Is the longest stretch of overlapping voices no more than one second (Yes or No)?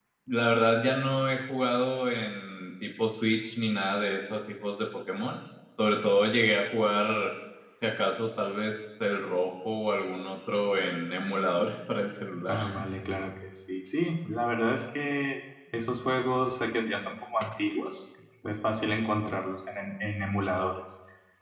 Yes